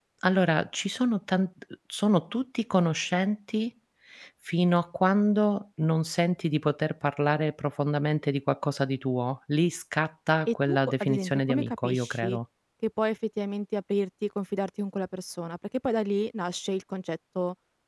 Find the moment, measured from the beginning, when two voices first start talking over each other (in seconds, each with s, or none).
10.5 s